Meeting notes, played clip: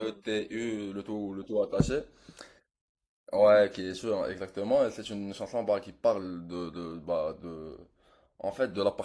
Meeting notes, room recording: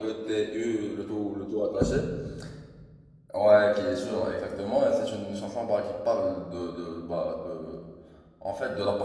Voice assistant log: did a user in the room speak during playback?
No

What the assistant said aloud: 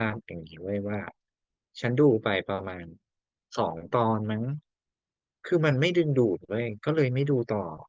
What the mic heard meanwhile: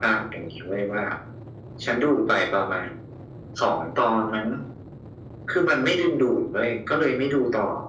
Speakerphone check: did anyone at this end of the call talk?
No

